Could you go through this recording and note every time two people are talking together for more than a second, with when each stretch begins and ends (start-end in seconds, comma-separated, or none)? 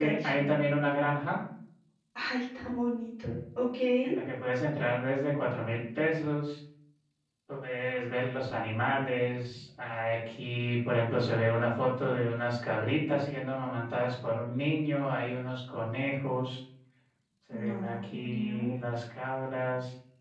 17.5-18.7